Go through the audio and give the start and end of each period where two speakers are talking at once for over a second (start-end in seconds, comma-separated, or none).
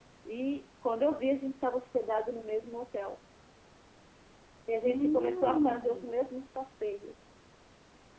4.8-6.3